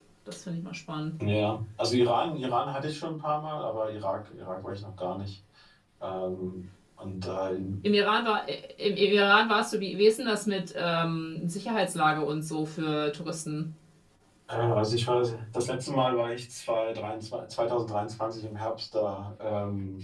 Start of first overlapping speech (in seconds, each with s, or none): none